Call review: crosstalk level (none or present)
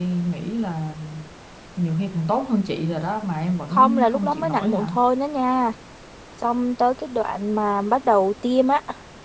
present